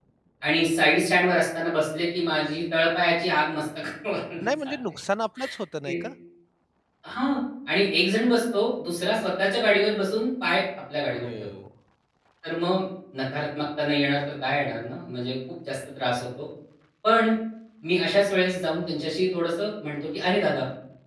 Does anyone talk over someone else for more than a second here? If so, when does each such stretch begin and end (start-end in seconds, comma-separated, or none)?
none